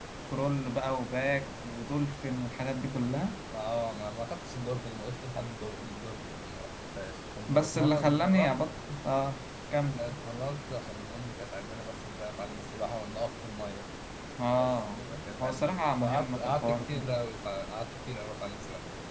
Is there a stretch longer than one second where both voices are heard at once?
Yes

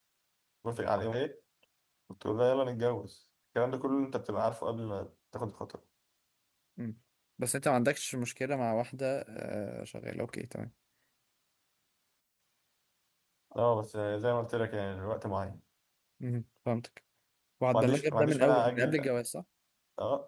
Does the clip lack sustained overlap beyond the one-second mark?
No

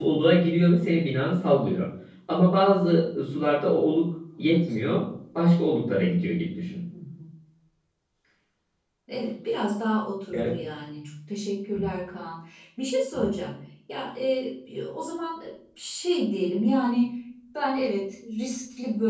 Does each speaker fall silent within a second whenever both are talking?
Yes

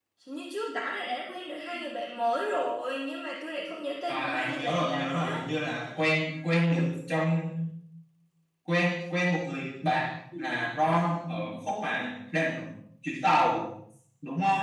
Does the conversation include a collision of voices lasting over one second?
Yes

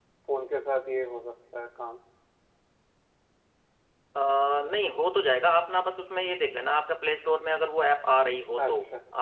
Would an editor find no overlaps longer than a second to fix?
Yes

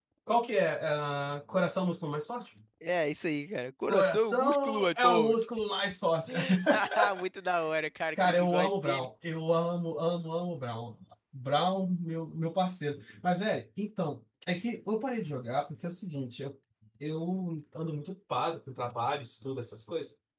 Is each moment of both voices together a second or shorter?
No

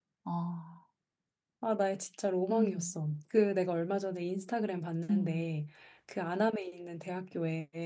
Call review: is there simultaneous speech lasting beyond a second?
No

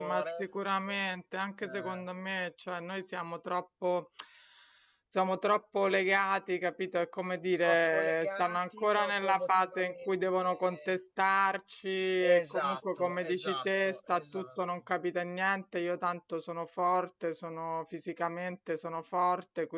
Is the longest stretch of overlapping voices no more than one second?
No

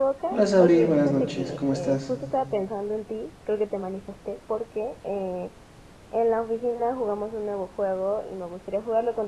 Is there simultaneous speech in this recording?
Yes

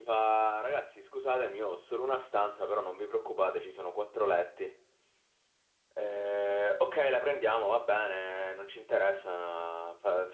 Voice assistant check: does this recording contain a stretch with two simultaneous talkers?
No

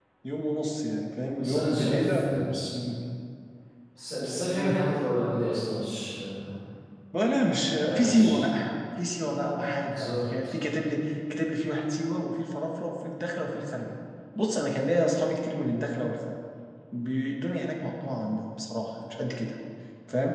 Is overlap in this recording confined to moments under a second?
No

